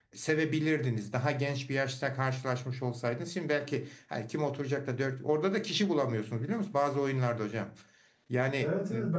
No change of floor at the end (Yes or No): No